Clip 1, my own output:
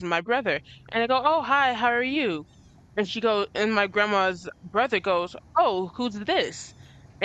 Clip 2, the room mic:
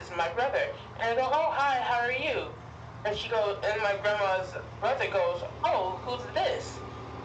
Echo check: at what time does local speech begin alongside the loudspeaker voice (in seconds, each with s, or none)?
none